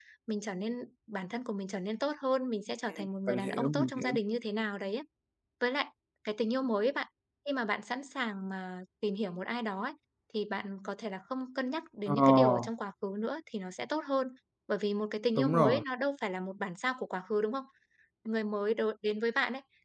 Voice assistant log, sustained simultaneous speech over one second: present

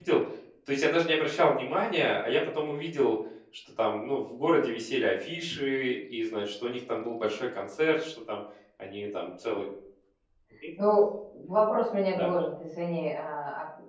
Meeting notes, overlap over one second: none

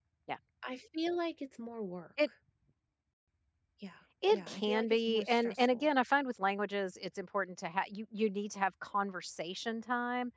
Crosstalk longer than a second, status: present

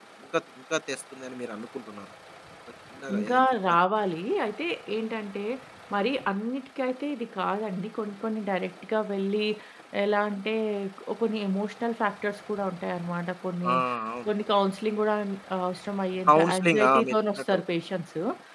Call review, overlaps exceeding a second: present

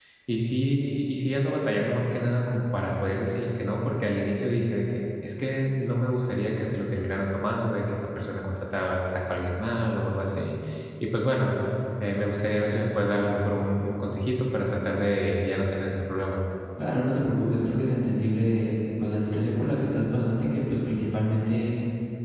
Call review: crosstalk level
none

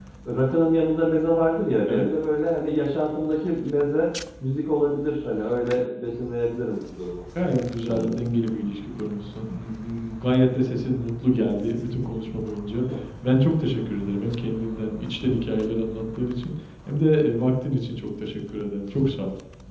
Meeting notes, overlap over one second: none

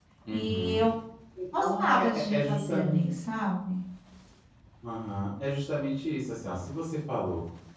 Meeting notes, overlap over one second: present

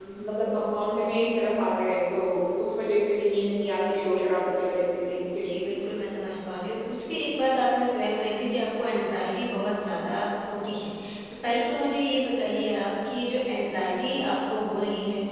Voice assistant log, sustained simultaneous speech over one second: none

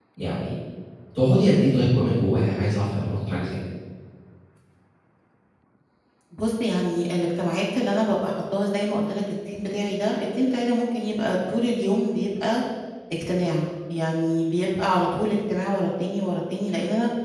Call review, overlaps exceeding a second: none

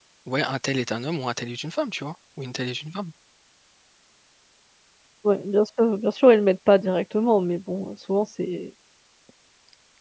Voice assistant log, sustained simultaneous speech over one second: none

